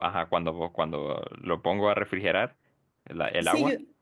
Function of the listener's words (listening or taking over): taking over